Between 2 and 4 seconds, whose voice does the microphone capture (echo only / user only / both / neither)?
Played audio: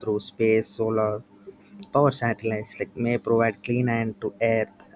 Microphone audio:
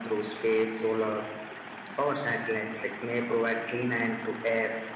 echo only